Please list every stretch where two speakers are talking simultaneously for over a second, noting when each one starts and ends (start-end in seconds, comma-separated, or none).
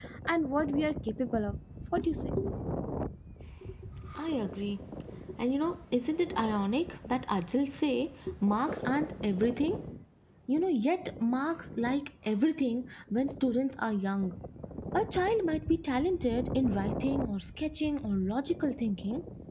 none